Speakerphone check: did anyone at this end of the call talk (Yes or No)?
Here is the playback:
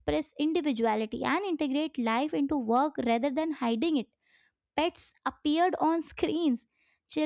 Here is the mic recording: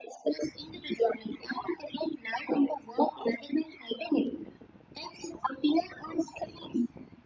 No